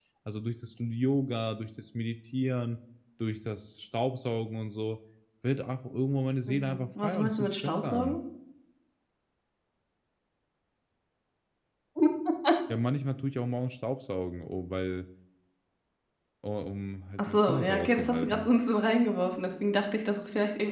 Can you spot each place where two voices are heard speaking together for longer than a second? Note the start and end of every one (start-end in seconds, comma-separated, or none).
6.5-8.2, 17.2-18.5